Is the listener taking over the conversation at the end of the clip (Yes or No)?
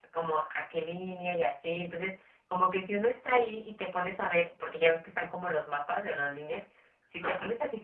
No